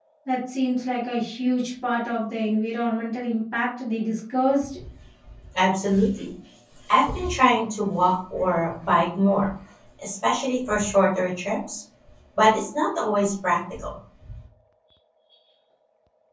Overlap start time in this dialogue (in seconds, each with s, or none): none